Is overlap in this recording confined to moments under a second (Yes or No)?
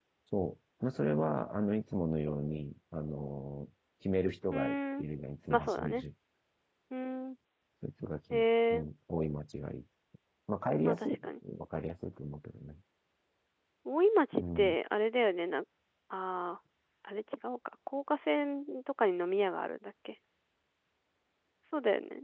Yes